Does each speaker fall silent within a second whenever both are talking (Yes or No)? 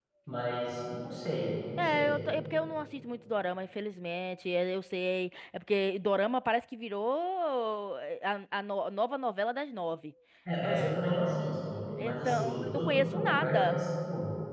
No